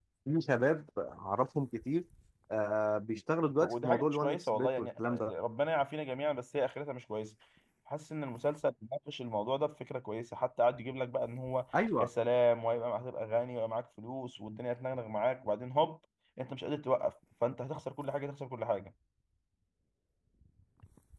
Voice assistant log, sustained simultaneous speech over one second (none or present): present